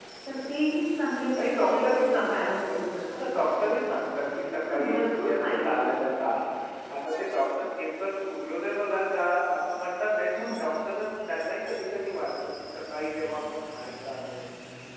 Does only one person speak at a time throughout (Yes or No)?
No